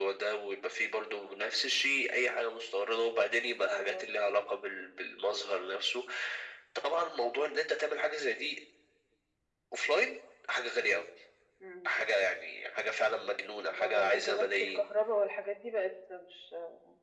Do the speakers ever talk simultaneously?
Yes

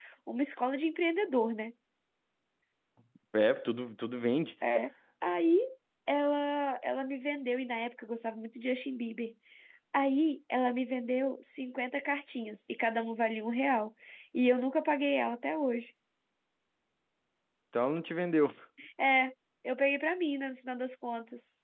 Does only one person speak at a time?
Yes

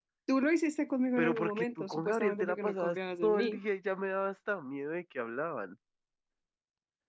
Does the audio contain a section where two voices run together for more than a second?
Yes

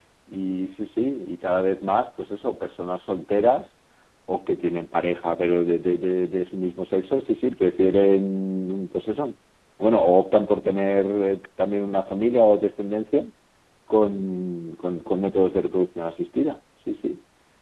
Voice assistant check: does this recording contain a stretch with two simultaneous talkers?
No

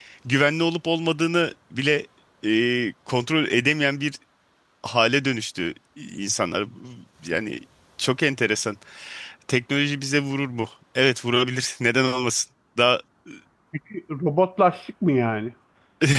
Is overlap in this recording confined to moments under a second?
Yes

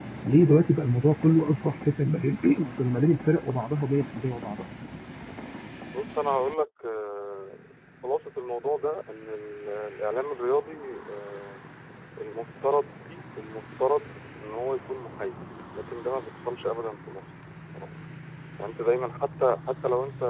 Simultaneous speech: No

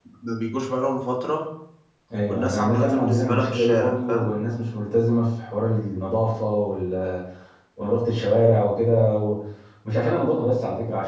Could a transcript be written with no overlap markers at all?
No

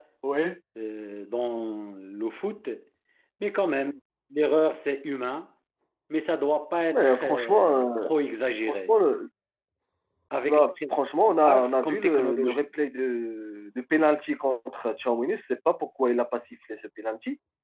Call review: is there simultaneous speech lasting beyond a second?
Yes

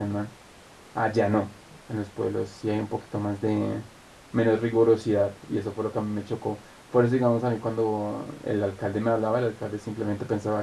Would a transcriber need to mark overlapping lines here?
No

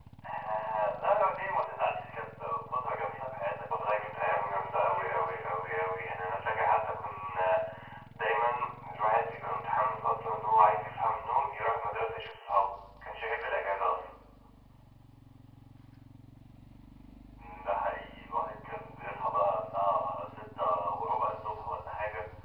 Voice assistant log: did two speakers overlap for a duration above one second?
Yes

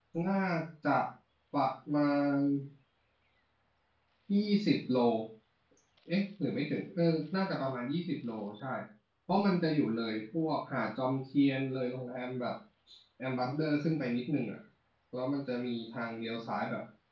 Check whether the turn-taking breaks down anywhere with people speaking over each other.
No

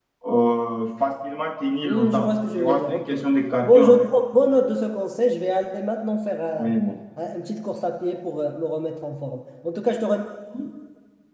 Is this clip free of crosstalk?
No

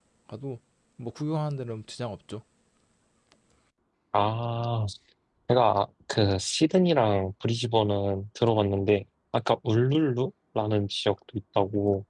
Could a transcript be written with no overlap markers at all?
Yes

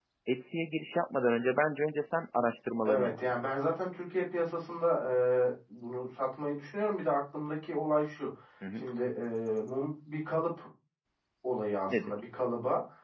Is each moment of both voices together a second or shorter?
Yes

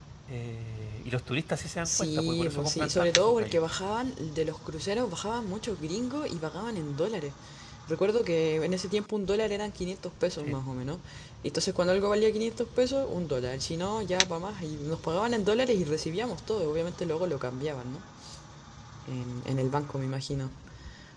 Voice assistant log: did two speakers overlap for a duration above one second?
Yes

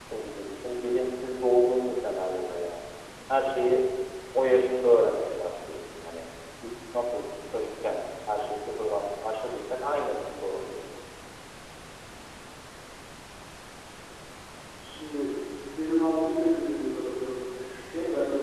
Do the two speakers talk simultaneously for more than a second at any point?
No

